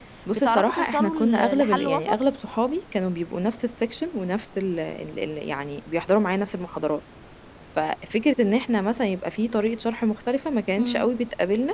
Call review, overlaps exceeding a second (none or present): present